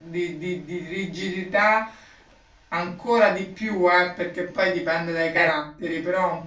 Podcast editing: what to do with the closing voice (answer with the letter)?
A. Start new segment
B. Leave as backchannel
B